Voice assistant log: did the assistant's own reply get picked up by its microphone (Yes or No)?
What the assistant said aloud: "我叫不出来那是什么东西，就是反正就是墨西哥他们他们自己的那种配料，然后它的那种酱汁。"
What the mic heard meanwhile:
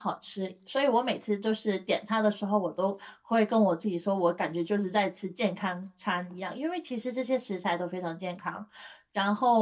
No